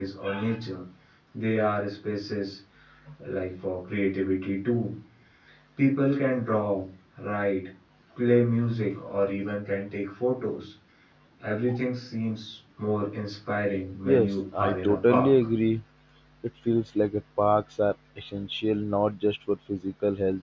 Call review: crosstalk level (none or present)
present